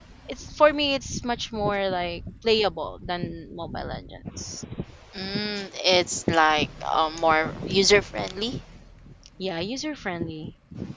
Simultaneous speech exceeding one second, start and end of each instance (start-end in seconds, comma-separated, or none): none